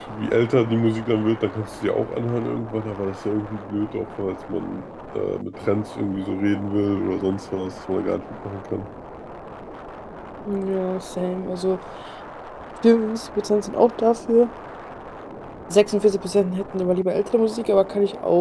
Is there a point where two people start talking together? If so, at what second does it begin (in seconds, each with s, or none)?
none